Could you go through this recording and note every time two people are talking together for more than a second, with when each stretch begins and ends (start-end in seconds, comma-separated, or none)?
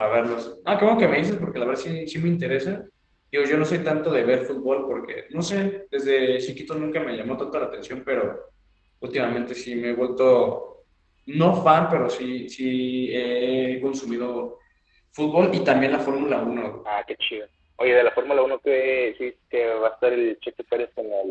none